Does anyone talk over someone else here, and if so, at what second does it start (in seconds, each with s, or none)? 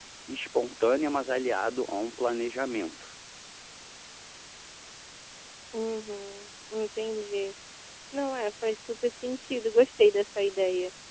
none